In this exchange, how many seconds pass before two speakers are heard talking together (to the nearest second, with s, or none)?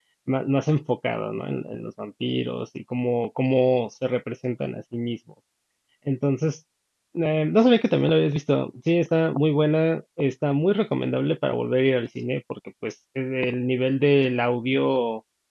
none